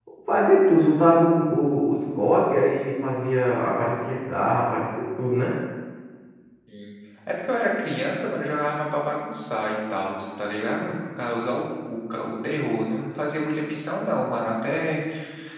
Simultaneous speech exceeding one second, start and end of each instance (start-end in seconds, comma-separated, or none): none